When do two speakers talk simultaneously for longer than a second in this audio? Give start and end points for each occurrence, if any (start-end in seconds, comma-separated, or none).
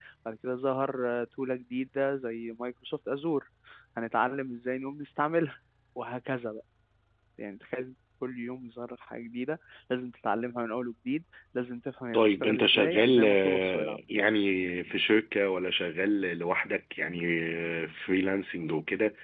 12.1-14.0